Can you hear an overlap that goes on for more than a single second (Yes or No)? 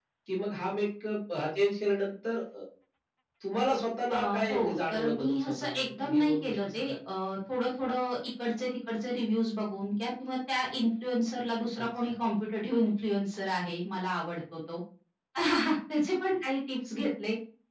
Yes